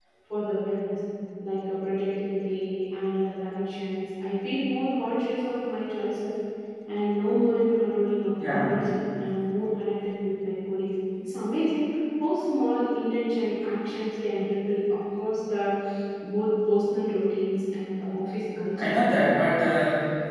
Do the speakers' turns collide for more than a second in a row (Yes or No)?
No